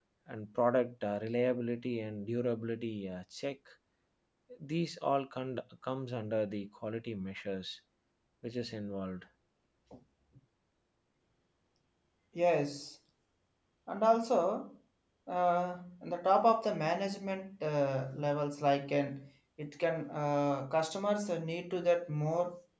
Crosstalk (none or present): none